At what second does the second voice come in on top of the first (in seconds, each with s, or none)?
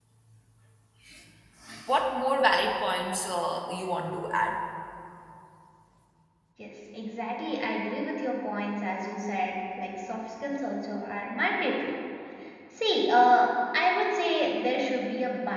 none